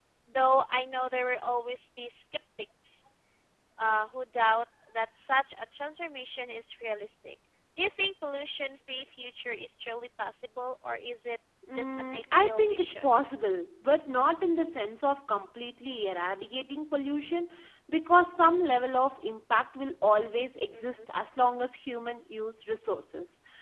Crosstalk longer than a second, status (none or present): present